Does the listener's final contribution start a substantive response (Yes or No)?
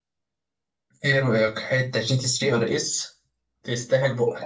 Yes